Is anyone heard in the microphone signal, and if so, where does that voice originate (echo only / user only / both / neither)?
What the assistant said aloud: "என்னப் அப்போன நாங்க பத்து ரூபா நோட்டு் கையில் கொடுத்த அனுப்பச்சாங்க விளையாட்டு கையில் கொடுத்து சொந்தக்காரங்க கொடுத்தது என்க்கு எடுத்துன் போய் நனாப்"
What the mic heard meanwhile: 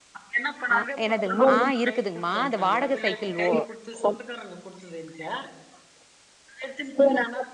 both